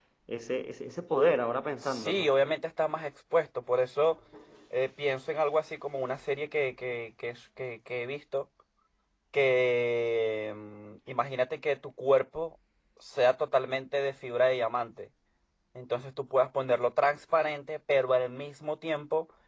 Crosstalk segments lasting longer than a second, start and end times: none

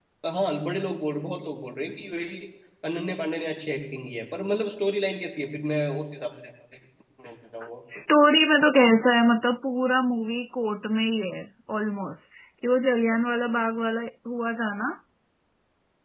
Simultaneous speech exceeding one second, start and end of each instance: none

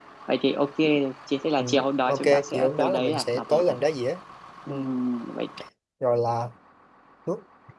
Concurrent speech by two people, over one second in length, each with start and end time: 2.1-3.8

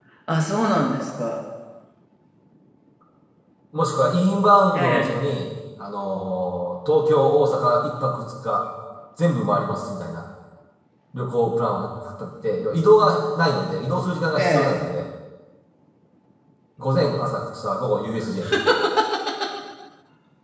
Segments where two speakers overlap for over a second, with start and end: none

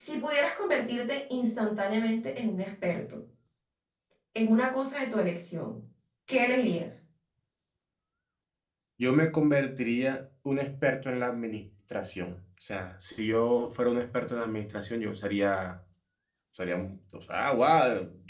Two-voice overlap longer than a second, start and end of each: none

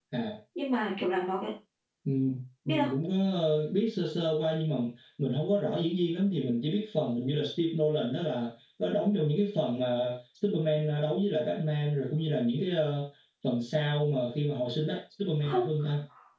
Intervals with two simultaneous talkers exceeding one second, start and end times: none

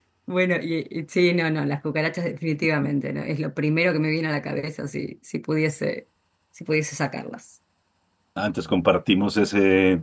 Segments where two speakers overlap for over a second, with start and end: none

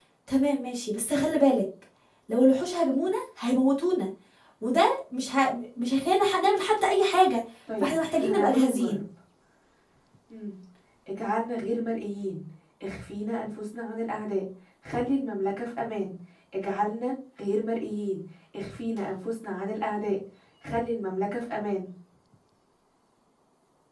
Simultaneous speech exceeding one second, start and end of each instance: 7.8-9.0

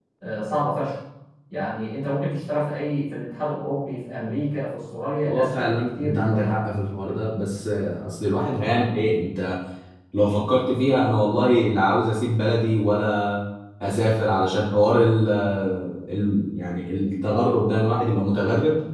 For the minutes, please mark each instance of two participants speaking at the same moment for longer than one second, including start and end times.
5.2-6.6

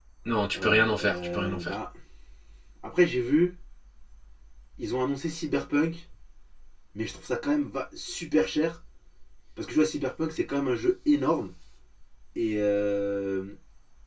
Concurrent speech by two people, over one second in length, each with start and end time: 0.5-1.7

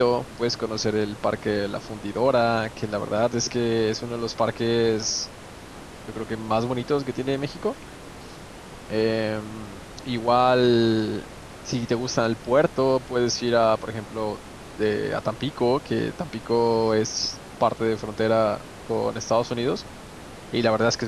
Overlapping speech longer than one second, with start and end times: none

